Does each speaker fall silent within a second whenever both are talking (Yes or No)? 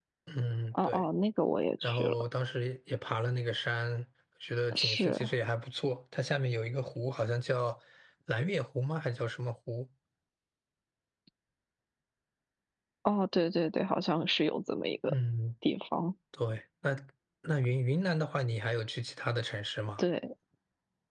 Yes